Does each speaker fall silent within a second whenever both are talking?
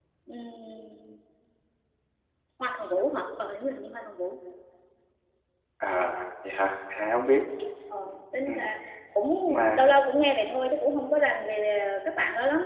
Yes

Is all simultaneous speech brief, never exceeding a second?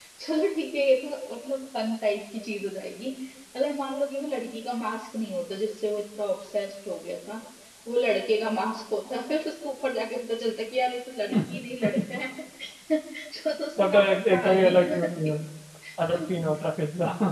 No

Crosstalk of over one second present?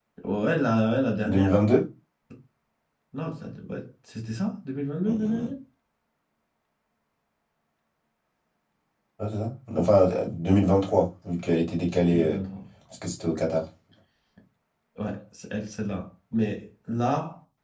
No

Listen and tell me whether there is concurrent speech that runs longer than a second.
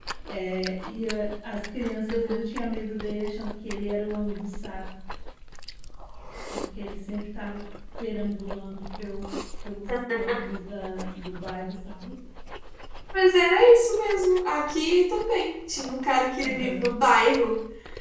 No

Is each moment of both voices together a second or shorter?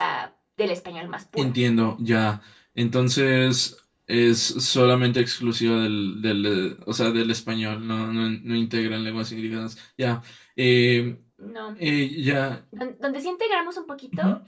Yes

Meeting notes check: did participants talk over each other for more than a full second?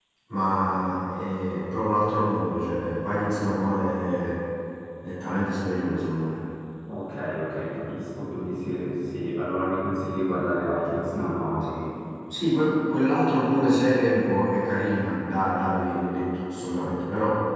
No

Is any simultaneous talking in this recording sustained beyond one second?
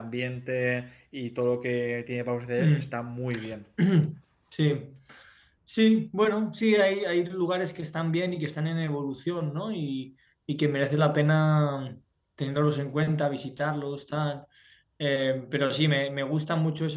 No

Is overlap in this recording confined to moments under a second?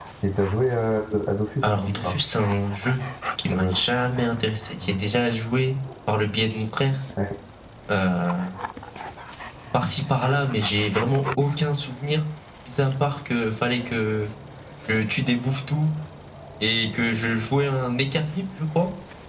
Yes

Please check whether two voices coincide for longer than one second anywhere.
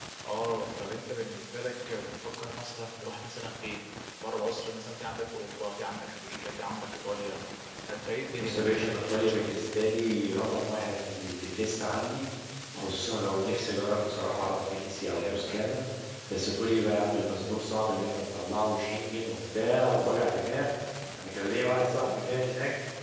Yes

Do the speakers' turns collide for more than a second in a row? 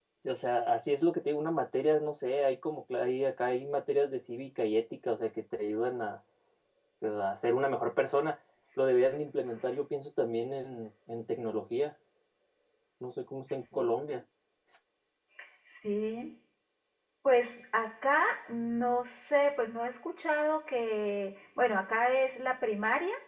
No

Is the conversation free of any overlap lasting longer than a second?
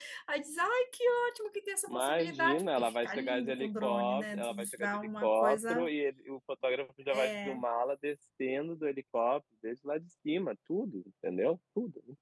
No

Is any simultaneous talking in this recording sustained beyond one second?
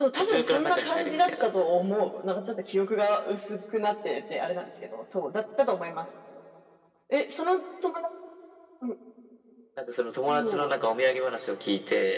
Yes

